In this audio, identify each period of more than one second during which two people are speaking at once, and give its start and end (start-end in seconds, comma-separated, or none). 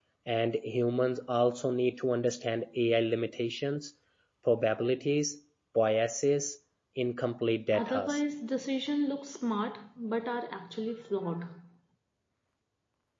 none